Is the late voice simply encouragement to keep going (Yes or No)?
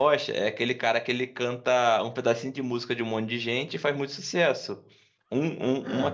Yes